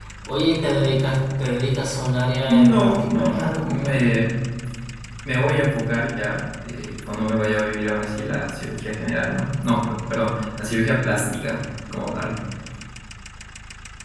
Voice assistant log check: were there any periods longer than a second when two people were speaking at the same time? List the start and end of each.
2.4-4.0

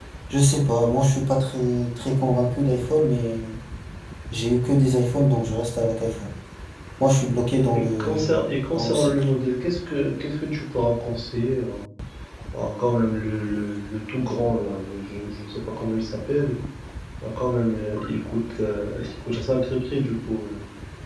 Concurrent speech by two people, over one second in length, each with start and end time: 7.7-9.1

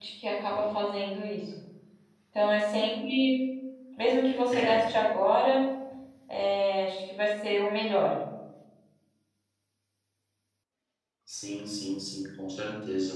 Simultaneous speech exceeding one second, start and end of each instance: none

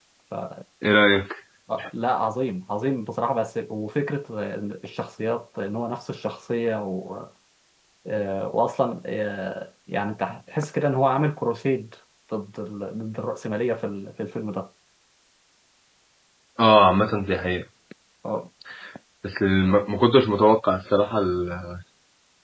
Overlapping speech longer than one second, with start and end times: none

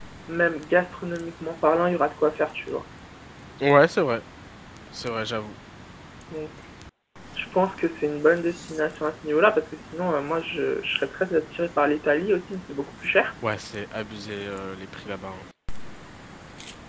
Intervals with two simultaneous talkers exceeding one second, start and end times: none

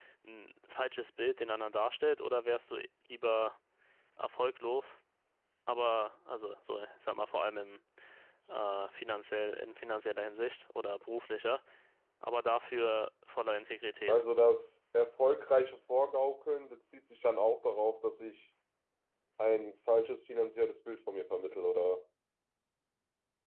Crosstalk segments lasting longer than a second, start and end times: none

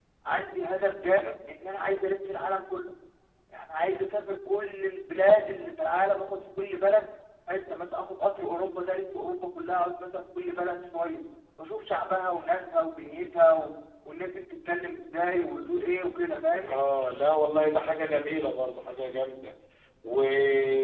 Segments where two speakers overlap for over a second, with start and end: none

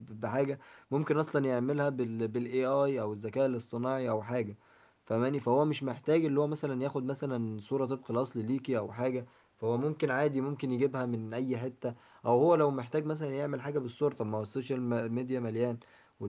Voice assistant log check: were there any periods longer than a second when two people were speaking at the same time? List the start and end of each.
none

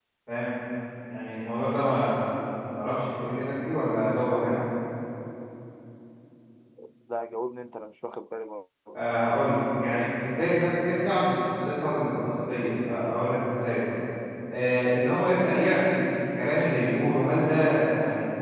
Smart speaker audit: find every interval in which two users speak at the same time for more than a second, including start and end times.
none

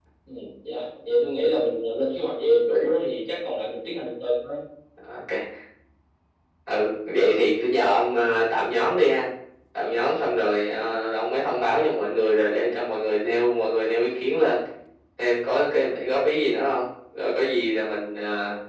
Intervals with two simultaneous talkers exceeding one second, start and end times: none

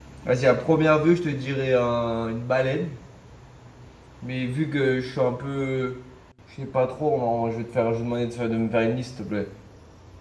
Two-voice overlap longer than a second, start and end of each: none

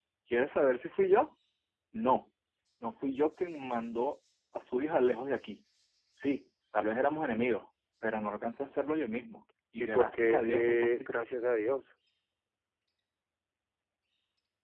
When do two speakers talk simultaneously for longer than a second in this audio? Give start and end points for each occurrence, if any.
9.8-11.1

